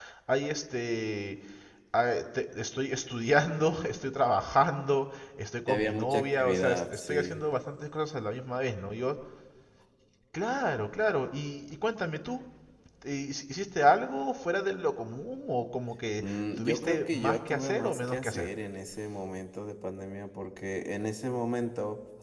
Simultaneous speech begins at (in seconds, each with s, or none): 5.7 s